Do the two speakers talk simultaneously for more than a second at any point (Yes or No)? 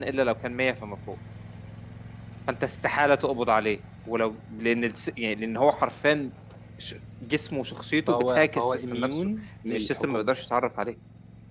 Yes